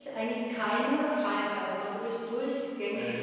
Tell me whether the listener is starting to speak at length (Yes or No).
No